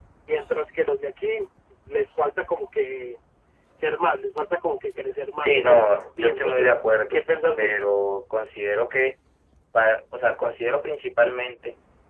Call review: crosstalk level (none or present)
present